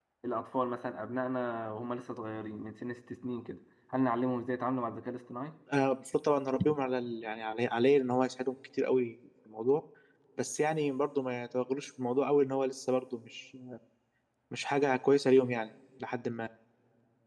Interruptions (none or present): none